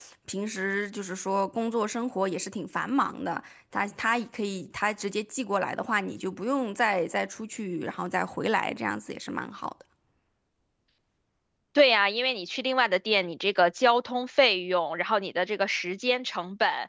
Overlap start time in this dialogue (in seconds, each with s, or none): none